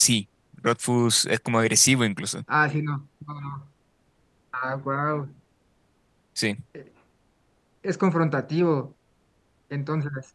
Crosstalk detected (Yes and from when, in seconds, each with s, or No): No